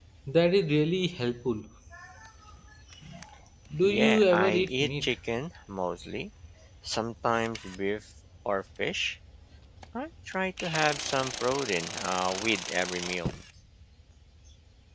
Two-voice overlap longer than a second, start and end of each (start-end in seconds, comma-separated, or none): 3.8-5.1